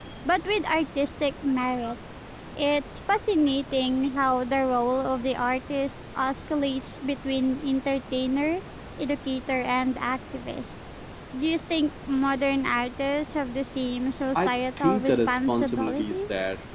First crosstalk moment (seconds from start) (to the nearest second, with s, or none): 14 s